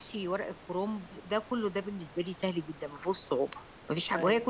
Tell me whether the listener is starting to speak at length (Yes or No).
No